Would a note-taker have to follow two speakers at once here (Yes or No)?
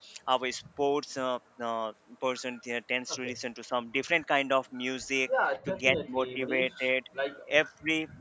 Yes